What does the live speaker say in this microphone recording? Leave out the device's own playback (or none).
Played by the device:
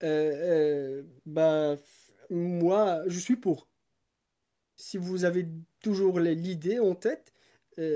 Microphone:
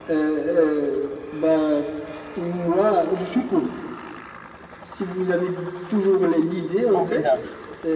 formidable.